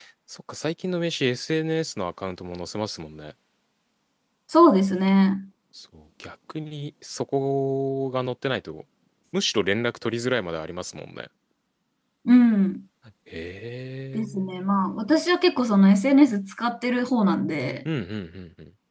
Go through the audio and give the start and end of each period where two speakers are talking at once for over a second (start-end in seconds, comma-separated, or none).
none